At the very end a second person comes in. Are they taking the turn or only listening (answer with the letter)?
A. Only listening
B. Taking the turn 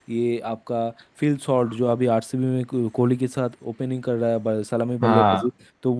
A